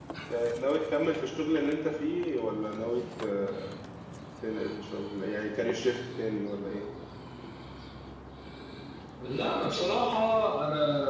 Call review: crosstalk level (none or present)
none